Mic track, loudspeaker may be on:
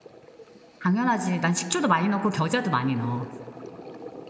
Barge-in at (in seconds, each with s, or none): 0.8 s